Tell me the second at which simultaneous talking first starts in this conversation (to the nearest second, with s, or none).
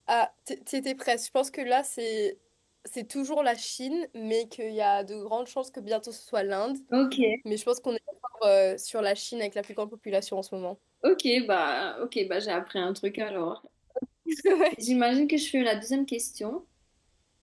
none